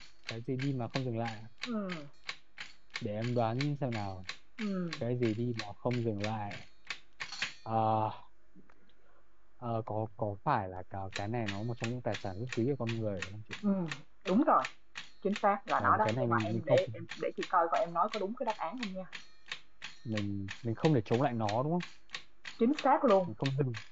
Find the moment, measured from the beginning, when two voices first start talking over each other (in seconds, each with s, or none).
15.8 s